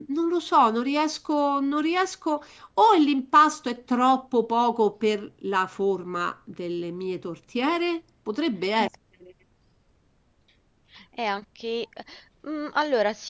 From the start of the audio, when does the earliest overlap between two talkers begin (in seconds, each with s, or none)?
none